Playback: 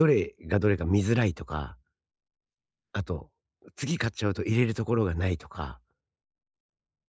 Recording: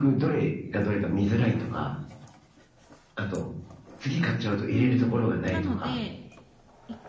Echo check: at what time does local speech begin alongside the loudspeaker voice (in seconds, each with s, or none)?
4.7 s